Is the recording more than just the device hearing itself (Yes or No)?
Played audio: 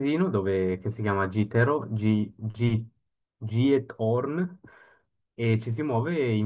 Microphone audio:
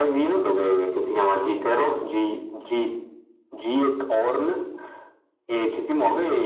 No